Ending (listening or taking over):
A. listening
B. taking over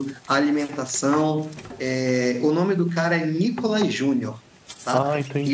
A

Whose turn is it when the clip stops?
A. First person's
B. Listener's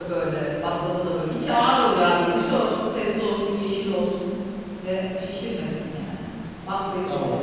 B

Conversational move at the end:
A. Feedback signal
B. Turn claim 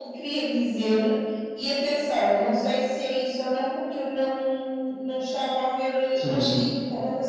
A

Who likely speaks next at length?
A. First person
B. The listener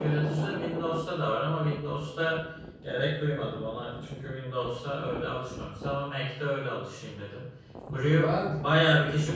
A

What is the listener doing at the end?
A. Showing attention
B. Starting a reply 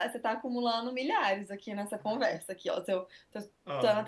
A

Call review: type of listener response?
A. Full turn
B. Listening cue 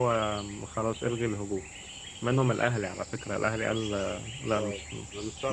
A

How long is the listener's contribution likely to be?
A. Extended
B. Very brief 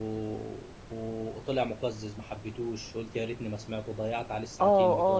A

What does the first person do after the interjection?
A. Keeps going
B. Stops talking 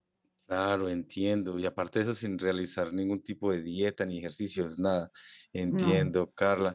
A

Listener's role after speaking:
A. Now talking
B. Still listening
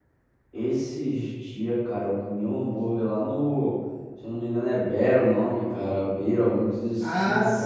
A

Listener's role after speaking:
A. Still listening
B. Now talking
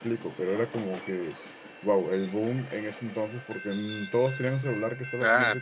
A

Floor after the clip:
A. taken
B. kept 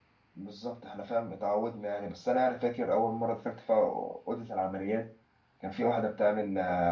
B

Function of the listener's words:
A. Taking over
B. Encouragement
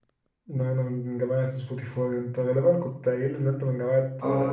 A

